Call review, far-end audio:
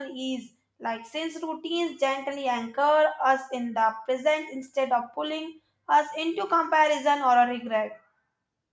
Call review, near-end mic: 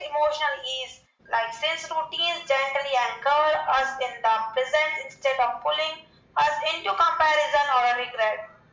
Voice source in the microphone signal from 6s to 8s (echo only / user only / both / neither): echo only